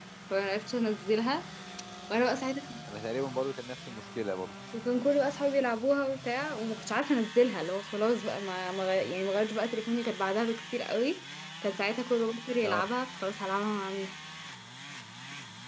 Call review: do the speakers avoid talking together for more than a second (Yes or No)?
Yes